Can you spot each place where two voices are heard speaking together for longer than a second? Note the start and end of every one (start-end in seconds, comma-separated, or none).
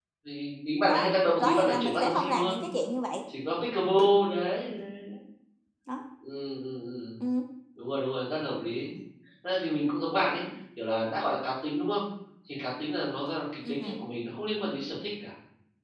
0.9-2.6